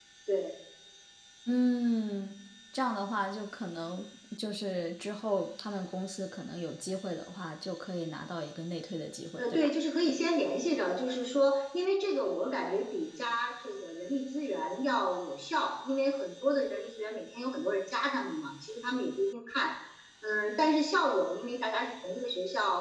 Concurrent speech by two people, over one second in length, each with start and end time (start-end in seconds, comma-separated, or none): none